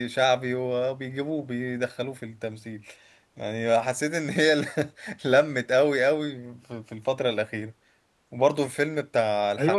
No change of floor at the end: No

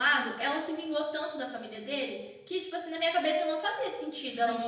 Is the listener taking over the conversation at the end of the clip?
Yes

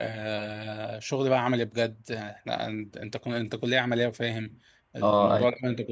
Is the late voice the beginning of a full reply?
No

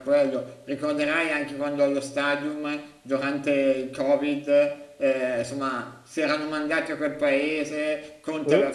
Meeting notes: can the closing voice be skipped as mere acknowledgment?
Yes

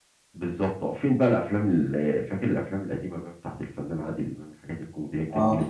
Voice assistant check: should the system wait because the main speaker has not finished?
No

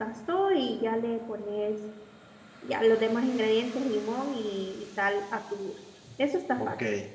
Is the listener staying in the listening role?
No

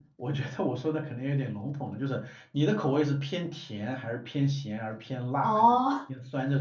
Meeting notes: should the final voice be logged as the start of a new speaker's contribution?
Yes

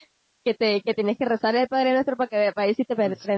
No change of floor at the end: No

